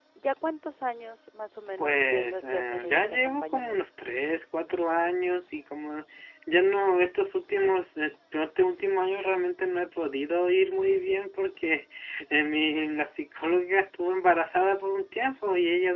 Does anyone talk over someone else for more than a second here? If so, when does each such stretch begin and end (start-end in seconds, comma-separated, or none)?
1.8-3.8